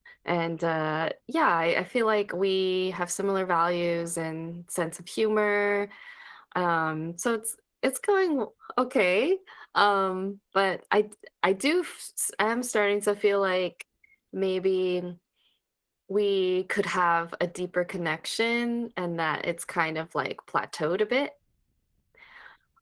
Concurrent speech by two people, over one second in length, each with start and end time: none

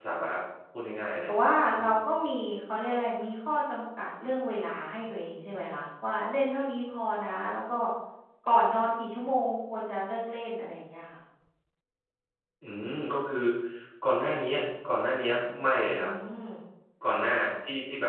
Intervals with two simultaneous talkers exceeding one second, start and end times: none

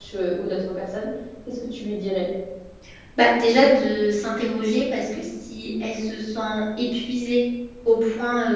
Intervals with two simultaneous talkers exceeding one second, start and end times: none

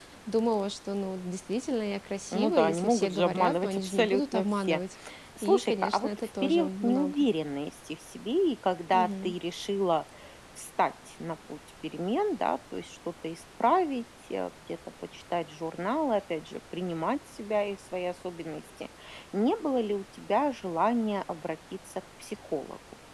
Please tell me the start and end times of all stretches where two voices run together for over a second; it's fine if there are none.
2.3-4.8, 5.4-7.2

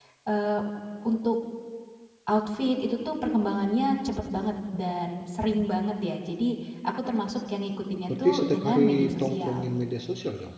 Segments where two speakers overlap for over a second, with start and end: 8.1-9.7

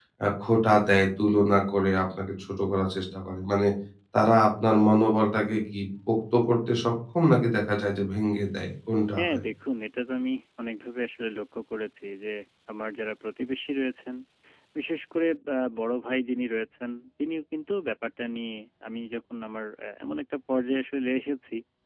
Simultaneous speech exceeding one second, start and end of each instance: none

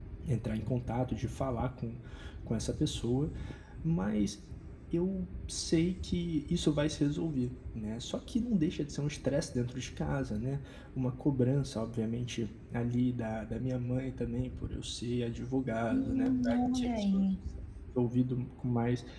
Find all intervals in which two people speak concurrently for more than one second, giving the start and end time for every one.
15.9-17.2

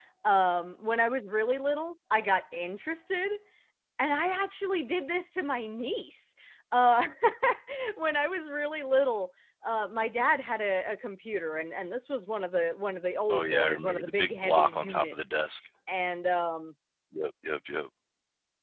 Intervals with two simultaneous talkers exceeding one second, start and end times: 13.3-15.3

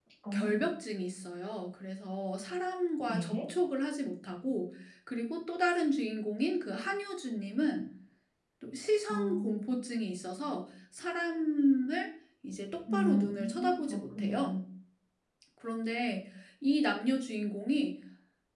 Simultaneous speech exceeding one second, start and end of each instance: 12.9-14.5

